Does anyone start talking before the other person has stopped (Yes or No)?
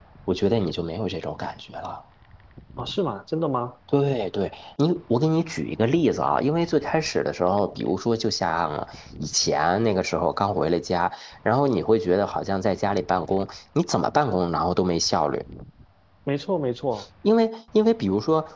No